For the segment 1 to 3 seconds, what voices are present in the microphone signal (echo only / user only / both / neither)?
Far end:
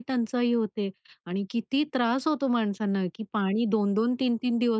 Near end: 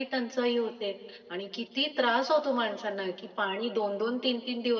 echo only